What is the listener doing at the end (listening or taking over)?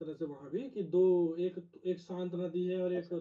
listening